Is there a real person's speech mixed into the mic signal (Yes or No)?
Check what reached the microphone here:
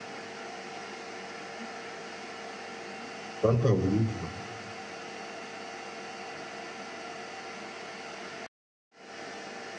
Yes